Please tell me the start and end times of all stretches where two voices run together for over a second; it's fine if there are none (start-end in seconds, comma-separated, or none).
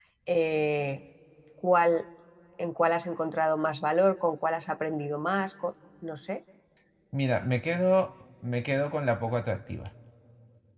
none